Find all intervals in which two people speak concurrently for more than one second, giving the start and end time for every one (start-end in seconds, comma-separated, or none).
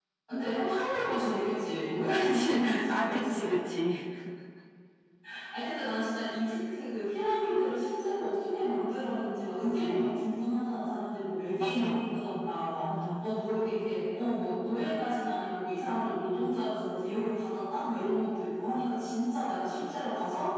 2.1-3.5